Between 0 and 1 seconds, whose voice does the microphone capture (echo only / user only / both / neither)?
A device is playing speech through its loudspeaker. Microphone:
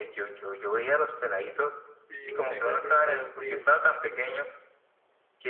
echo only